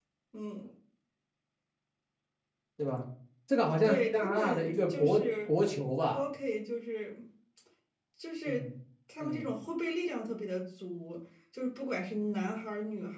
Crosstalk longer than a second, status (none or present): present